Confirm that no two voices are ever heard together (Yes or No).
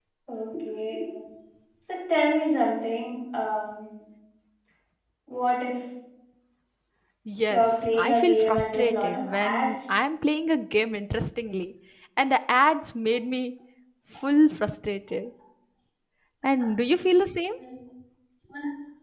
No